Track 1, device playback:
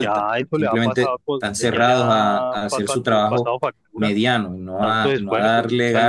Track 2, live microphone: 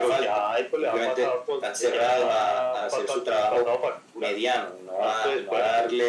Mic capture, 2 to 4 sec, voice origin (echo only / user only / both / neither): echo only